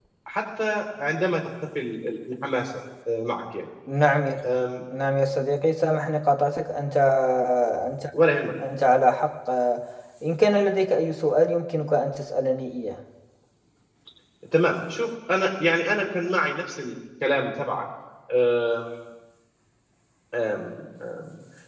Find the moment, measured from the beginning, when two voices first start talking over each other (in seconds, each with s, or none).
none